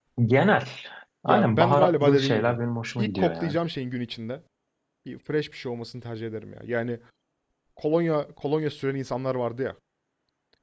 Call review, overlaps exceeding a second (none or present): present